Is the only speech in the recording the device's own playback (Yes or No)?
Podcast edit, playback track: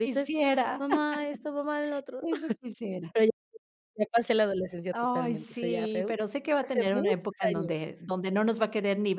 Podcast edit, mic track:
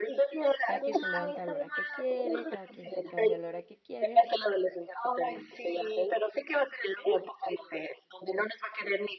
No